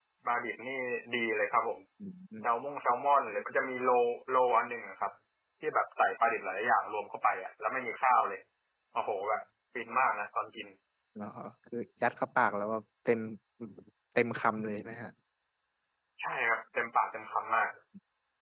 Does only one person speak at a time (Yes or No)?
Yes